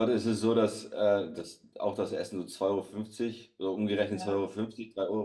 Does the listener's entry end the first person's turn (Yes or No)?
No